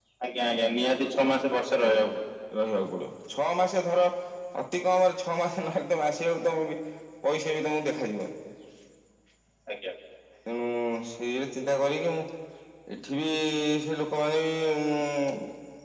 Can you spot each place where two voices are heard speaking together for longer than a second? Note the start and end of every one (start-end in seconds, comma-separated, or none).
none